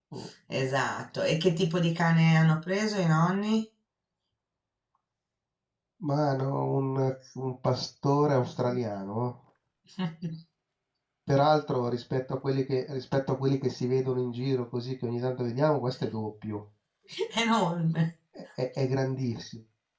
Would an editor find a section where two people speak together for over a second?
No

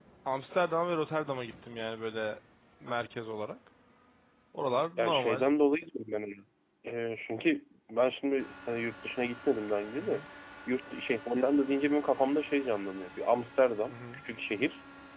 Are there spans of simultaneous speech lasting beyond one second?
No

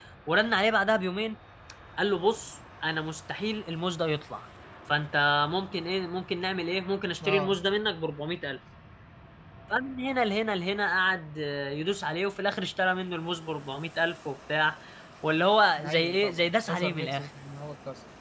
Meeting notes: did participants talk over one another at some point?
Yes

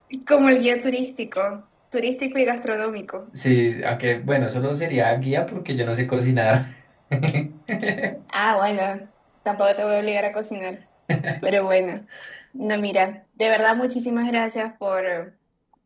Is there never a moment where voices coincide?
Yes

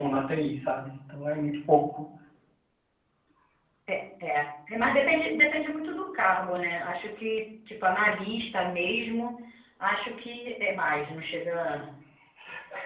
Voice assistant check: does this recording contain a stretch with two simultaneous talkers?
No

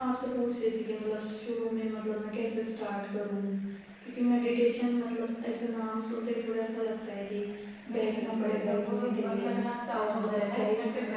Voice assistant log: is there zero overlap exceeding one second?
No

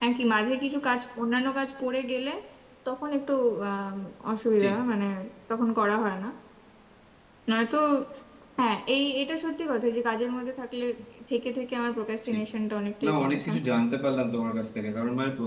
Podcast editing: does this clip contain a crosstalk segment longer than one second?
No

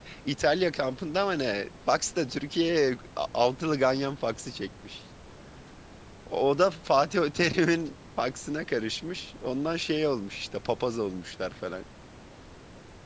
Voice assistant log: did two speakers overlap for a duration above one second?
No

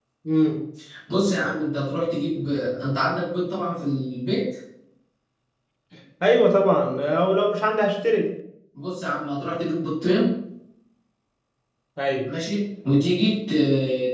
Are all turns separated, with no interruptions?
Yes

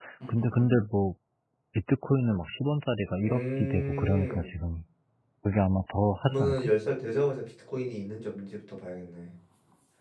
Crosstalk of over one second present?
Yes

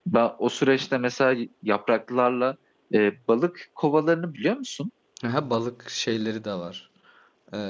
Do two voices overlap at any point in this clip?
No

